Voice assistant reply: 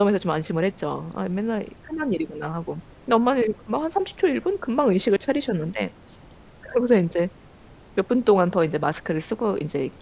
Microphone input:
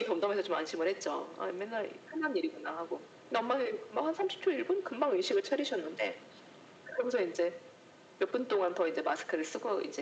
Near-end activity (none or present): none